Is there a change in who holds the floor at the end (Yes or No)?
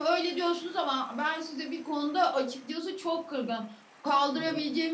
No